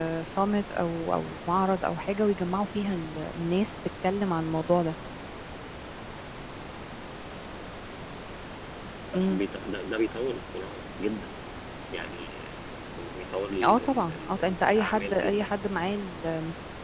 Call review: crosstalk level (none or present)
present